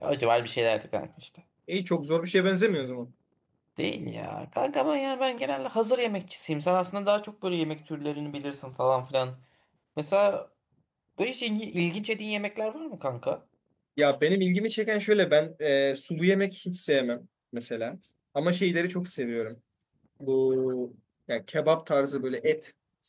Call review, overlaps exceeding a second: none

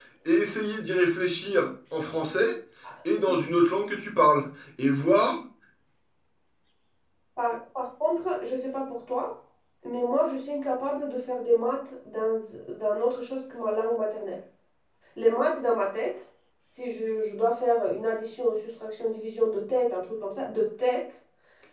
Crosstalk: none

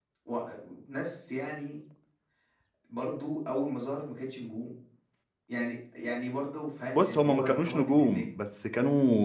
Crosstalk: present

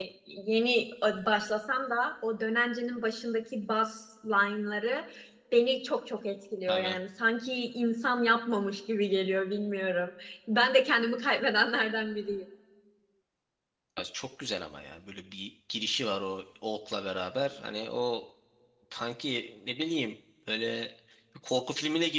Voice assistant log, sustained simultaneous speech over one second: none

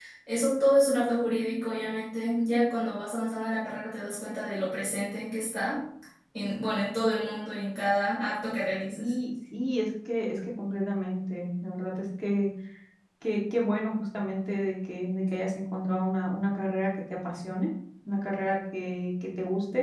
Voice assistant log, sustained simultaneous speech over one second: none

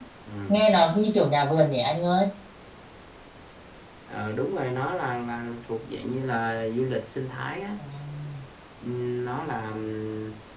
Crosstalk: none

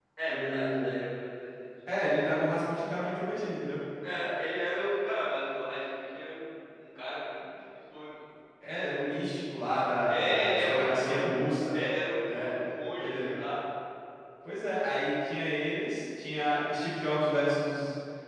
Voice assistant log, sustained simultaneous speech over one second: present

